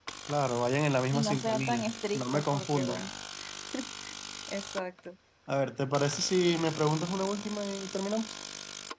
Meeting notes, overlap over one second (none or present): present